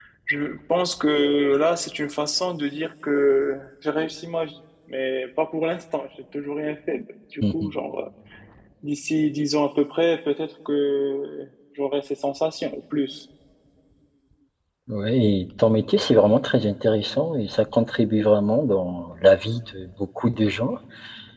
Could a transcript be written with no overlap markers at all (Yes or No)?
Yes